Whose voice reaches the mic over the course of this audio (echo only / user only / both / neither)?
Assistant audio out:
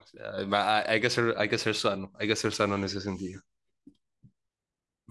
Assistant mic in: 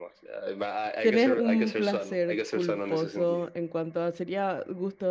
both